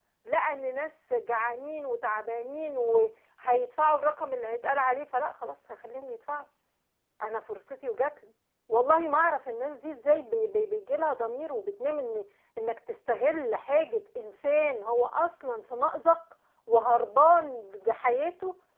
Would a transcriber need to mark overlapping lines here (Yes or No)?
No